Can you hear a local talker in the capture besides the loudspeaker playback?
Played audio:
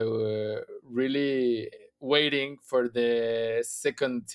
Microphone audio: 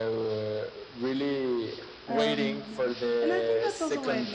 Yes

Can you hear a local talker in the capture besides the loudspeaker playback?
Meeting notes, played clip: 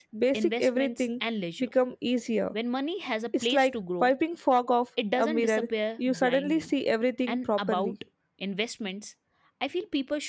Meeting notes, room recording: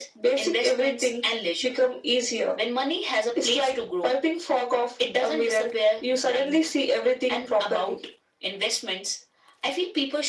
No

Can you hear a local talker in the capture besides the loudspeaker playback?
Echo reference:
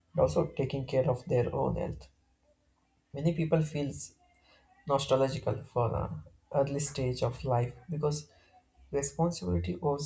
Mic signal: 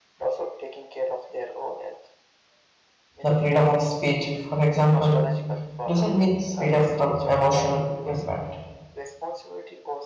Yes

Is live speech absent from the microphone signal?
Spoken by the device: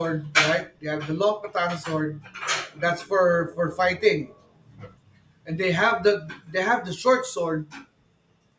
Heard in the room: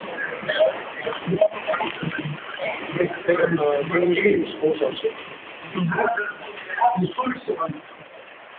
No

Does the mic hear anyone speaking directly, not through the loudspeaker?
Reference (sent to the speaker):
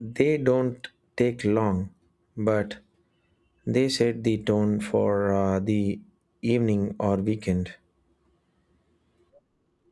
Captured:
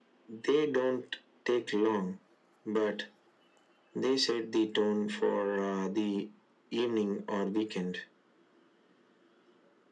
No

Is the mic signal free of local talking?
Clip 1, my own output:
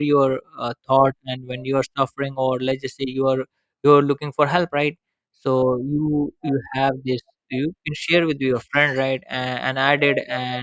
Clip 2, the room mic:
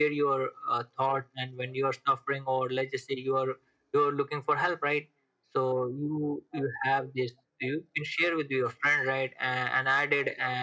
Yes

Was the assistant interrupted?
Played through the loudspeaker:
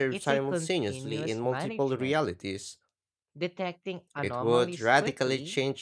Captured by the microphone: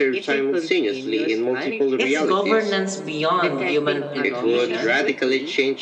Yes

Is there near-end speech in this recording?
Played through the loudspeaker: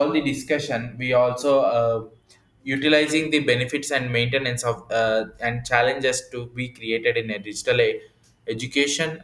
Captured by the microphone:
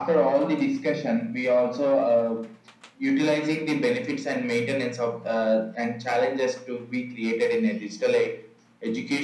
No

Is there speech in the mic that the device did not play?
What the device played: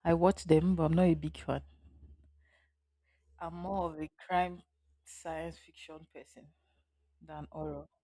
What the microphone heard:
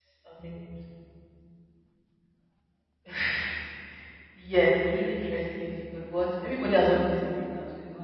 Yes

